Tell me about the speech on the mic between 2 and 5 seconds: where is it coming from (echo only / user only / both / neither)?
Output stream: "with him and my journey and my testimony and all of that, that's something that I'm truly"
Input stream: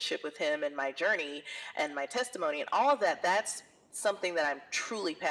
echo only